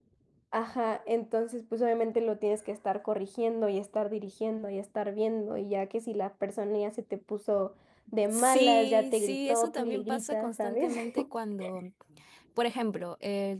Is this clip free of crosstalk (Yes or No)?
No